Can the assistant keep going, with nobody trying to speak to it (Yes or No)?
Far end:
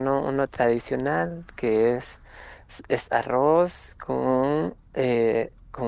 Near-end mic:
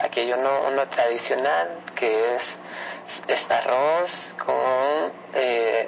Yes